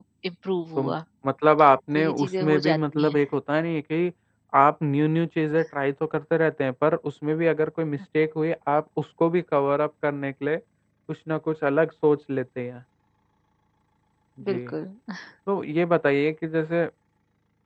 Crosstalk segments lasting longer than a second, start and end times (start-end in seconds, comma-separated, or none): 1.9-3.2